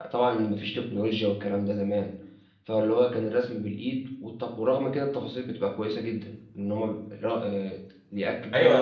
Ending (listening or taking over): taking over